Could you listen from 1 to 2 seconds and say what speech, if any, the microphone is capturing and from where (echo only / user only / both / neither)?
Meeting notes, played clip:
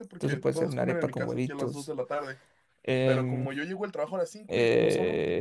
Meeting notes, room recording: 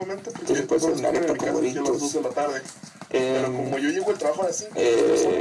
echo only